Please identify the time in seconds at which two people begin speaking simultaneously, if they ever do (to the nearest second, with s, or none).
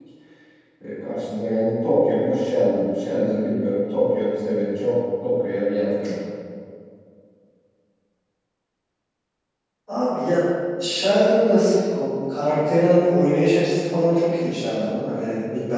none